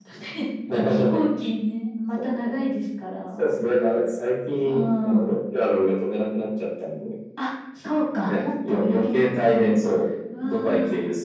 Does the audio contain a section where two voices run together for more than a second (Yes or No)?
Yes